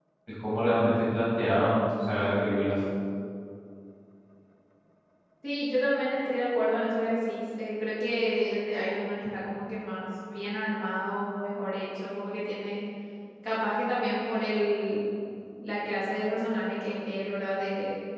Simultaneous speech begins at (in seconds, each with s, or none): none